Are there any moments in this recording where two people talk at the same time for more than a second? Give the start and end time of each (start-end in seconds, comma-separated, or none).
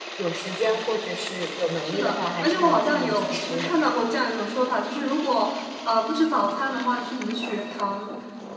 1.8-3.7